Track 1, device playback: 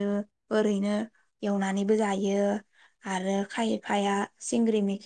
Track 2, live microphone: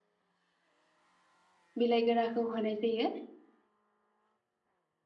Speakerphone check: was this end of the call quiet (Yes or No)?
No